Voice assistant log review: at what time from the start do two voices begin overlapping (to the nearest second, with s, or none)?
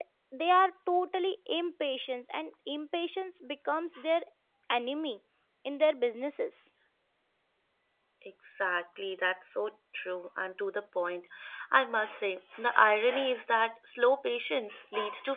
none